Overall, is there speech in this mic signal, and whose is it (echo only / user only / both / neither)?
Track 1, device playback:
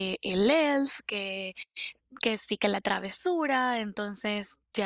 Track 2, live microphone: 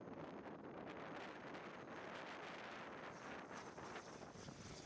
neither